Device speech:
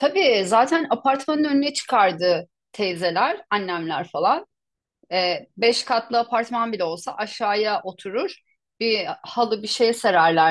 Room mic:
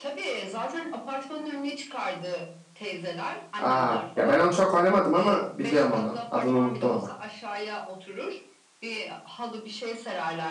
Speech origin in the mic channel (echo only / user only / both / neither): both